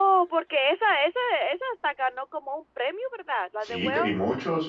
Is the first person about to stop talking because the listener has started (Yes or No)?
Yes